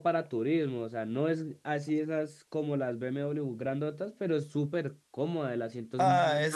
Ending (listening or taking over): taking over